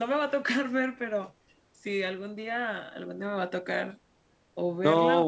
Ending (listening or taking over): taking over